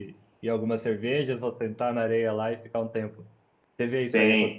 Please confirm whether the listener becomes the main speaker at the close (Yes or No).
Yes